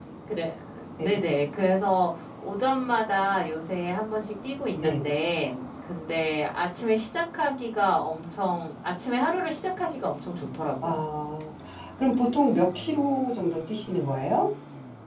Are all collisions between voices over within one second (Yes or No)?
Yes